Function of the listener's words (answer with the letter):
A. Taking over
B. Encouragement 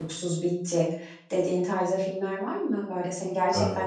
B